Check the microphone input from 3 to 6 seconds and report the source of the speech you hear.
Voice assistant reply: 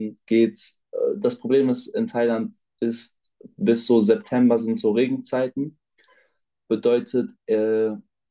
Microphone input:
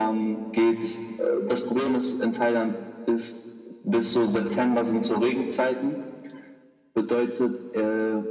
echo only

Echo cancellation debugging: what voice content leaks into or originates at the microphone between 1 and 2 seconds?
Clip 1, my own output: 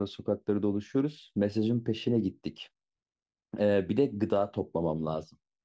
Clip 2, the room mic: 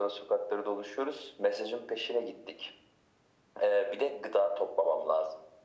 echo only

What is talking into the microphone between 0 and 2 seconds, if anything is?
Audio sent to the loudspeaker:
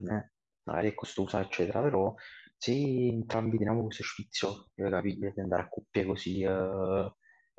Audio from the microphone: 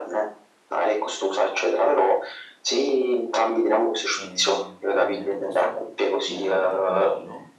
echo only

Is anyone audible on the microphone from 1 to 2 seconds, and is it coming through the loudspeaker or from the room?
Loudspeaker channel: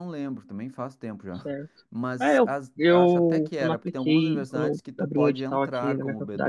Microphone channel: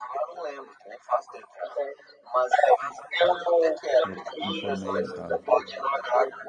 echo only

